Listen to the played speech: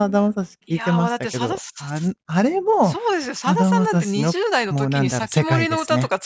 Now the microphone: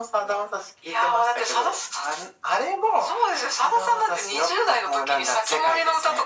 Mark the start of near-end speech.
none

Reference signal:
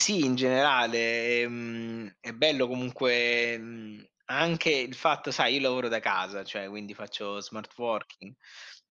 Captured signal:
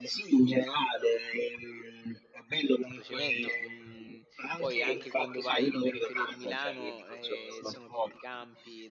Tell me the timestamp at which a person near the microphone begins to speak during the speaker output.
2.7 s

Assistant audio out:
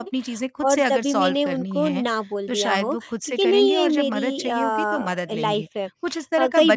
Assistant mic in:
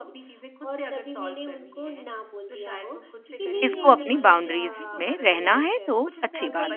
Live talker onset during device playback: 3.6 s

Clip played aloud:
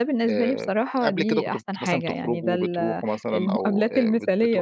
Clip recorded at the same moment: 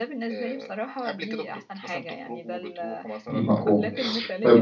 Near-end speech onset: 3.3 s

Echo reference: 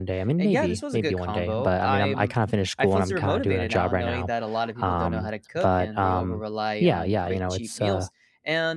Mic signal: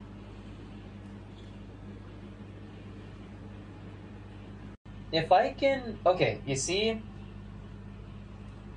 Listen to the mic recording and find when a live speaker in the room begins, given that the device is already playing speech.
5.1 s

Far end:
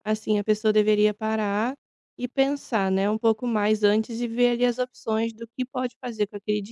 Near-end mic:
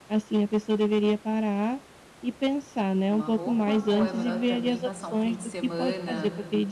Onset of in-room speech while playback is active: 3.1 s

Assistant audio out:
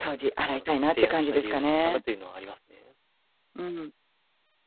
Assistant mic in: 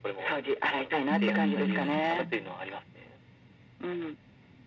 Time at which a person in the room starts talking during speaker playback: 1.1 s

